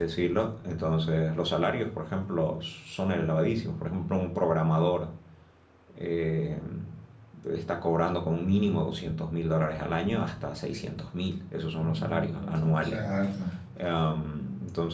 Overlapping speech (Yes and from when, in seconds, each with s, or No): Yes, from 11.7 s